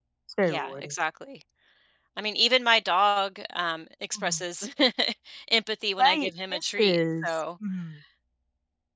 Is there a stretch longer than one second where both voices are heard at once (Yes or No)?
Yes